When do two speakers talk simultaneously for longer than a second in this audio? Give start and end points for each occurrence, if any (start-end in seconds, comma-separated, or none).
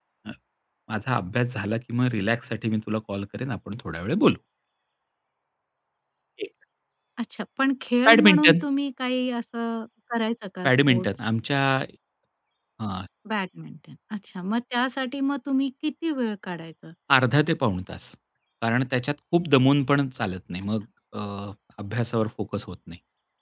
none